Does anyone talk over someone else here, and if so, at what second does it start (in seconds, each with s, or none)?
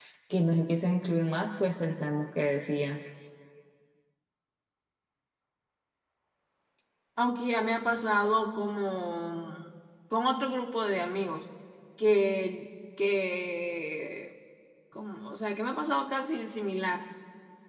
none